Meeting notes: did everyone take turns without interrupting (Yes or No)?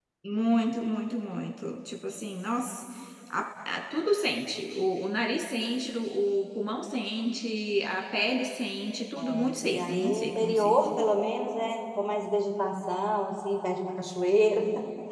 No